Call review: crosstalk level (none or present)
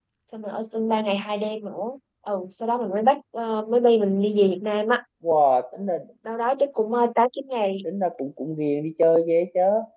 none